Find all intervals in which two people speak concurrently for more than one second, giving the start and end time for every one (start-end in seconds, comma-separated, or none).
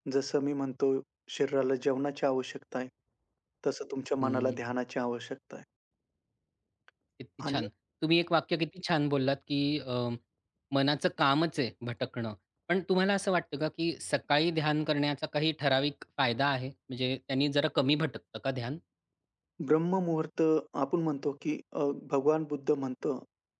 none